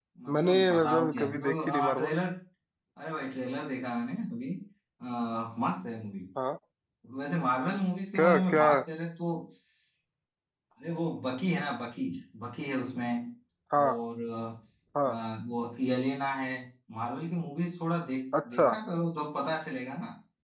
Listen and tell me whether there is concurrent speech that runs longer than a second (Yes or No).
Yes